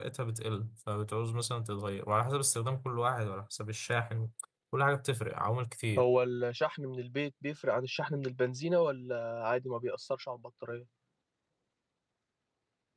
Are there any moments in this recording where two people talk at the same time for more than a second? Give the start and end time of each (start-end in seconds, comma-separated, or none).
none